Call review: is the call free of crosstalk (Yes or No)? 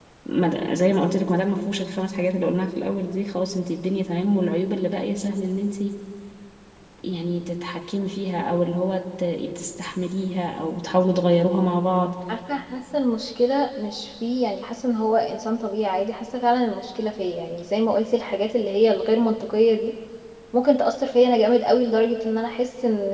Yes